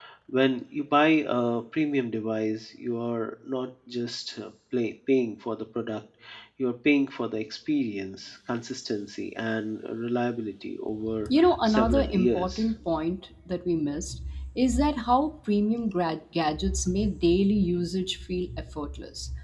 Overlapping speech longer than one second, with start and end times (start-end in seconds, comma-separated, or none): 11.4-12.7